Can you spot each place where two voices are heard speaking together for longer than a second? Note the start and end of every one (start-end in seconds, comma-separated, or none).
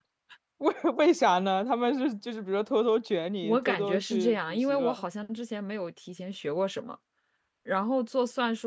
3.4-5.0